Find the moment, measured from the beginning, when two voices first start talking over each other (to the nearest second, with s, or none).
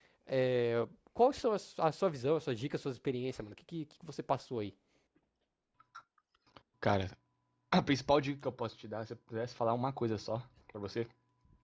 none